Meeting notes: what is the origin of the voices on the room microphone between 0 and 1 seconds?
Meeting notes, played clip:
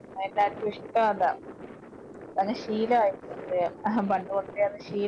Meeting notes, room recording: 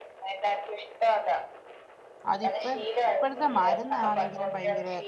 echo only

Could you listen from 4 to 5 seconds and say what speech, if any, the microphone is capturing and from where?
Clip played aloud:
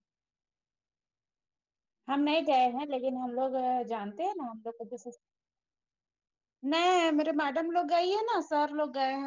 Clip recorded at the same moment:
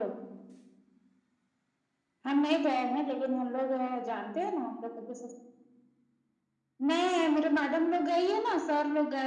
echo only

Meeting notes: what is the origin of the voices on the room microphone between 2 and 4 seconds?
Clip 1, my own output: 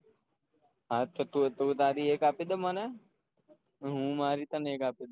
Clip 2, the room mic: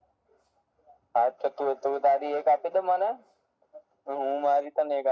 echo only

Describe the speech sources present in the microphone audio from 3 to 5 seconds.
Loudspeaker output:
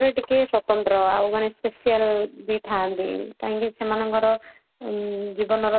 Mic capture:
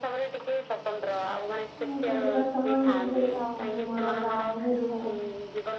both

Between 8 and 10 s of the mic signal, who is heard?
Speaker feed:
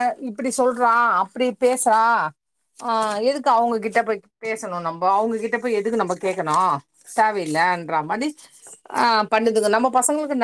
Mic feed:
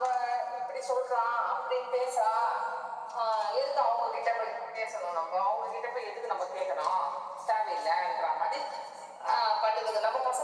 echo only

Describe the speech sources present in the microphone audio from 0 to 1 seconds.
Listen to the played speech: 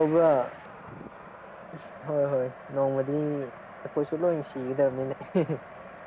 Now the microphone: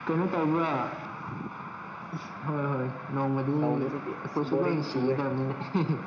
echo only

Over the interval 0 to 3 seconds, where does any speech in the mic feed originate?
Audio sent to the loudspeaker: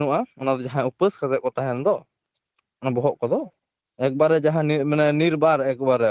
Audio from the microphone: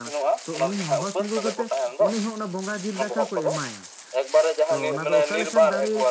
both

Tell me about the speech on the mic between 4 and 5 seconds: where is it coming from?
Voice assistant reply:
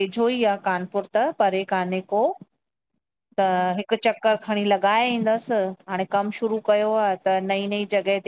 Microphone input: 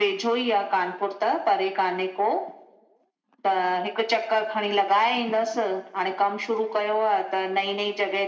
echo only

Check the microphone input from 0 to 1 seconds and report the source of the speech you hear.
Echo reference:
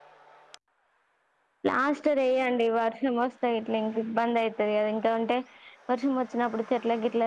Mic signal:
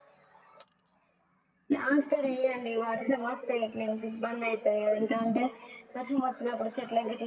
neither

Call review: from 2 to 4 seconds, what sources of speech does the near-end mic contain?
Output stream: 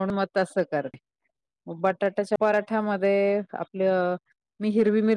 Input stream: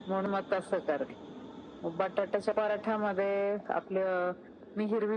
echo only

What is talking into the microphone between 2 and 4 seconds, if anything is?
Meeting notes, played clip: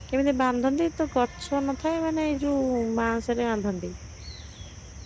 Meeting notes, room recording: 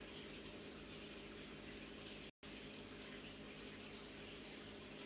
neither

